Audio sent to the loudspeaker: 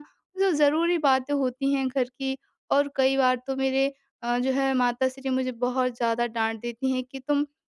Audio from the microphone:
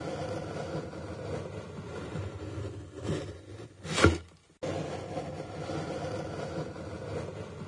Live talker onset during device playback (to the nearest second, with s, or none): none